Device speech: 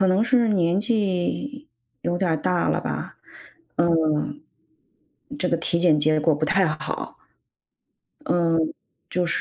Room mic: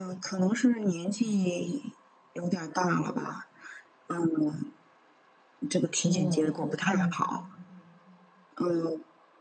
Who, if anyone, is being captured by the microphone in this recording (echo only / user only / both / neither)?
both